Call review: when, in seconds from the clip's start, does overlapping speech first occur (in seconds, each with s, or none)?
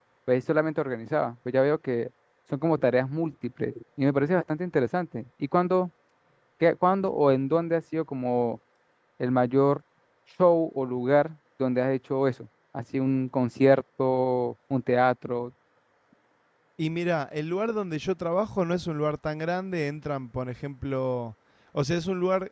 none